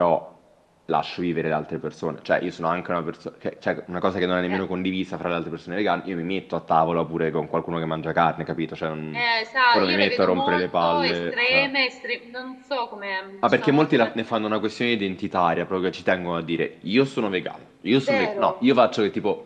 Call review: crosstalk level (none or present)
present